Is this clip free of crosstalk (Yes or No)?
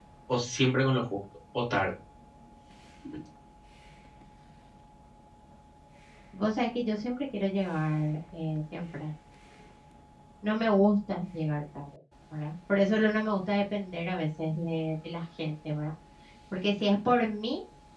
Yes